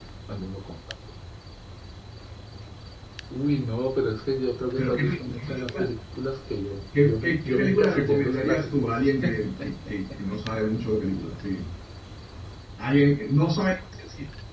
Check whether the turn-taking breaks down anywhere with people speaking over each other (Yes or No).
Yes